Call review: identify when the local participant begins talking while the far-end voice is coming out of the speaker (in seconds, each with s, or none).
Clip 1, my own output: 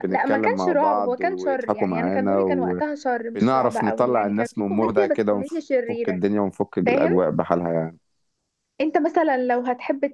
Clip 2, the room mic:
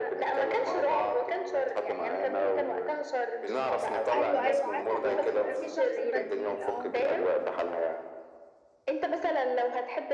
4.1 s